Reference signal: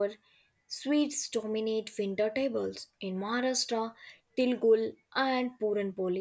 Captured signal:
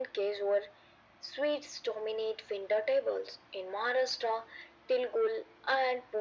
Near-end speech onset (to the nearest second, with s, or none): none